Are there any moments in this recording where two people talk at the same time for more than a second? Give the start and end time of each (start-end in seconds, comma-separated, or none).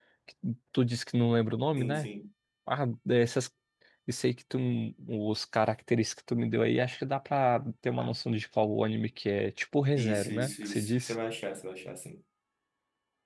9.9-11.2